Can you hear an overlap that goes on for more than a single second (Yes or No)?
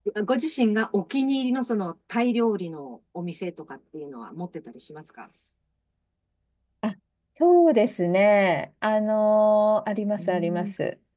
No